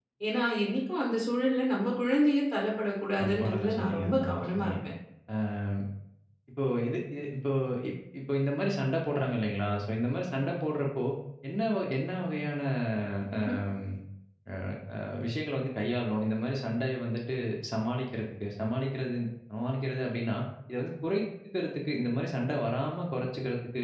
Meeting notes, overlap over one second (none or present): present